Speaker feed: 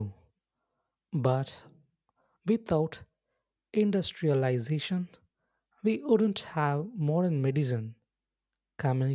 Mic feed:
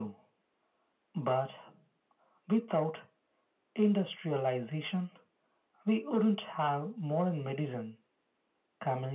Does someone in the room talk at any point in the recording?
No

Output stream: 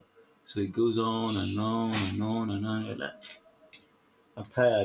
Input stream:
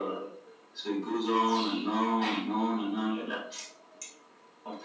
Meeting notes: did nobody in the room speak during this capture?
Yes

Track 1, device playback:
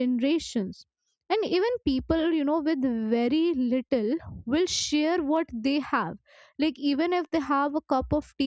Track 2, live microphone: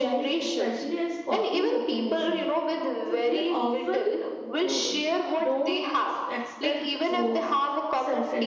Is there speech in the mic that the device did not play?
Yes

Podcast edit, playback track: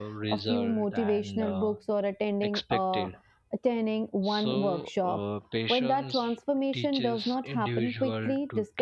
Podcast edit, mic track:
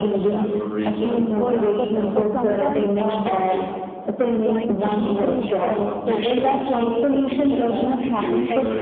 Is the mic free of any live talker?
No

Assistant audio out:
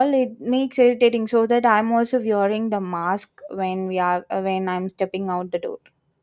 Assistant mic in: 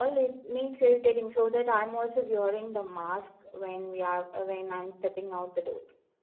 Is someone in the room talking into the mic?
No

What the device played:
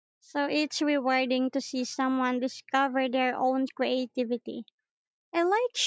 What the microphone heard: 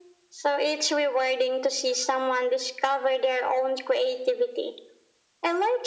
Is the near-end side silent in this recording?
Yes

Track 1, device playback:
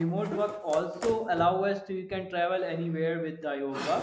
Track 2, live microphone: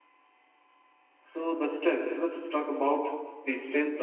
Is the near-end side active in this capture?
Yes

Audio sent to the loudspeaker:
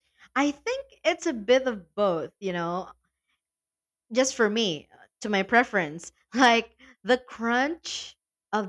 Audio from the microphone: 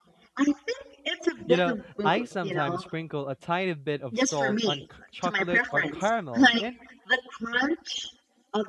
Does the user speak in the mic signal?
Yes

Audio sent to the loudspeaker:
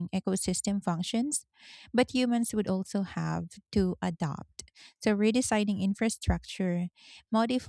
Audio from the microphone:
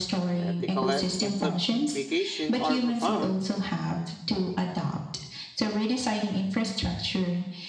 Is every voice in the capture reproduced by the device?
No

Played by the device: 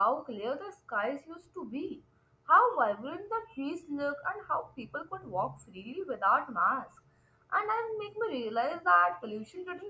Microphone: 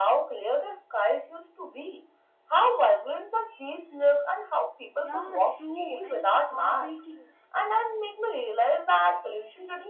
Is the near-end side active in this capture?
Yes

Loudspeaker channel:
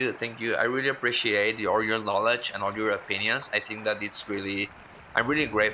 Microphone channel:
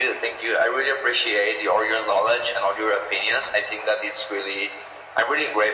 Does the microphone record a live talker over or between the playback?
No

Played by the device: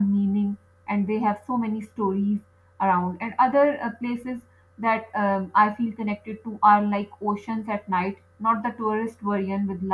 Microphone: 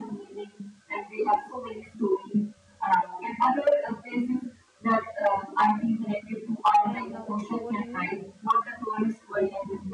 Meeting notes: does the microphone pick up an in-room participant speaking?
Yes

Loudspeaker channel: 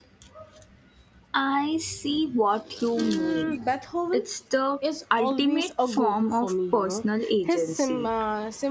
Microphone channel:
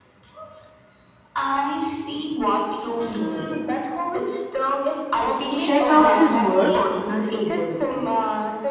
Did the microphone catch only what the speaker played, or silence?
No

